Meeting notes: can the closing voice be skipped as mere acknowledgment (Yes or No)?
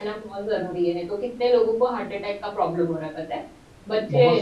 Yes